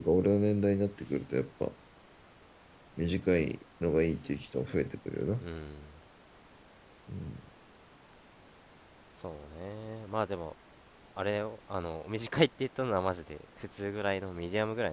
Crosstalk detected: No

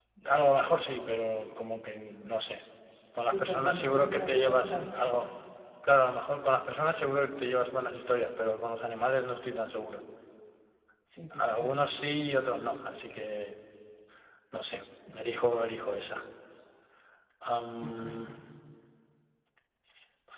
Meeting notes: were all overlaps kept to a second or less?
No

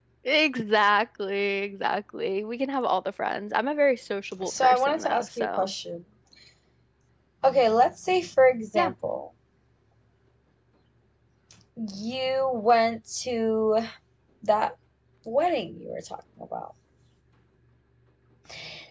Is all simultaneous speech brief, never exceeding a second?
No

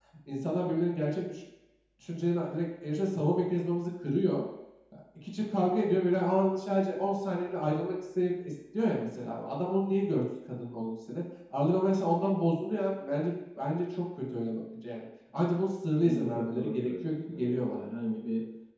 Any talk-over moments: Yes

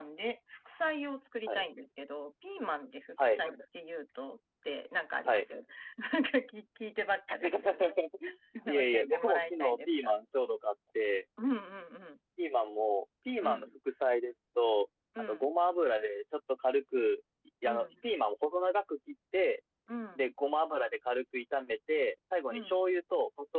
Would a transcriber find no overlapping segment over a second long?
No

